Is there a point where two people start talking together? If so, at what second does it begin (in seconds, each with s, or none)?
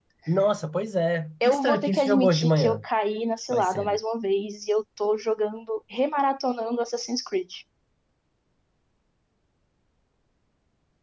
1.4 s